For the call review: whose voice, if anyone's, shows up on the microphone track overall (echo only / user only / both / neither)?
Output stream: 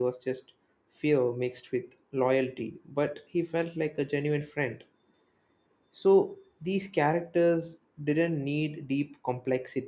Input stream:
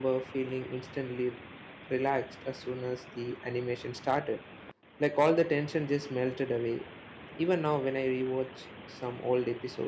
user only